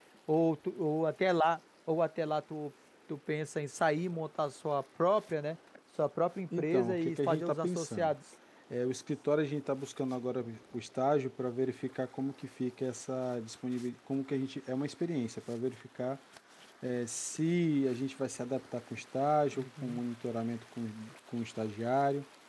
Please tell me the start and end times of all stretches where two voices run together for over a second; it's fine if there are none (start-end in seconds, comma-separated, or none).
6.6-8.1